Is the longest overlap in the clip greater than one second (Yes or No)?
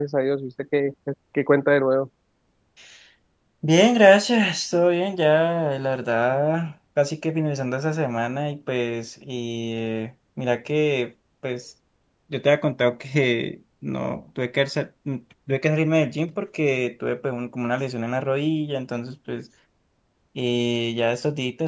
No